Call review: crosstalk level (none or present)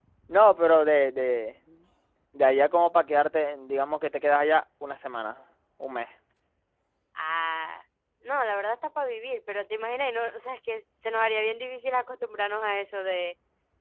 none